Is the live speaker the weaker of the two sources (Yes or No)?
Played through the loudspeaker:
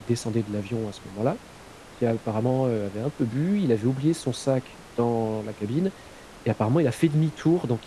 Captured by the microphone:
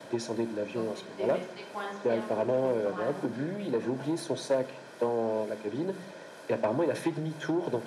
Yes